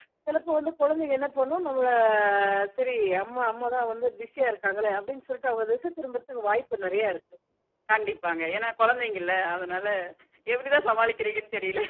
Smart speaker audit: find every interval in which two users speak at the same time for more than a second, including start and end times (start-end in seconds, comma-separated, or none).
none